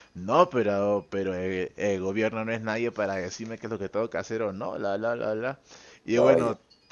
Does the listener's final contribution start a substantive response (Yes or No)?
No